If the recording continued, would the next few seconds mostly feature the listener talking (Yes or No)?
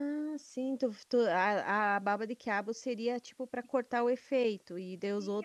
Yes